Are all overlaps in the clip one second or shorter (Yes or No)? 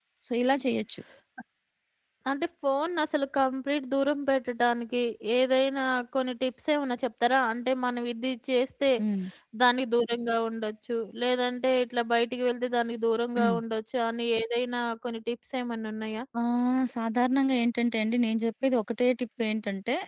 Yes